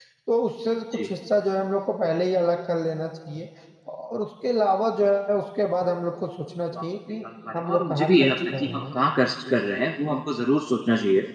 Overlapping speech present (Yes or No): Yes